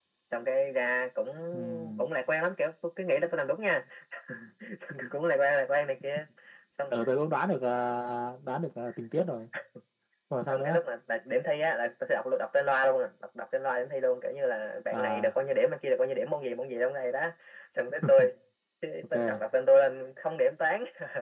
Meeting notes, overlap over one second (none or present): none